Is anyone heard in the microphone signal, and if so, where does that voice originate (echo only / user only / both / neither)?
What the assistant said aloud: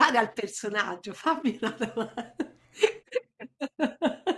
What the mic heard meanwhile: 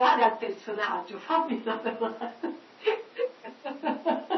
echo only